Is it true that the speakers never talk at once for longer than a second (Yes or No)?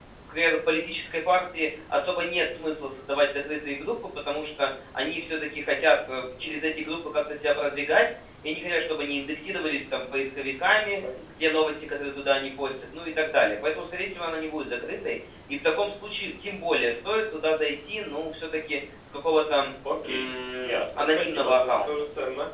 No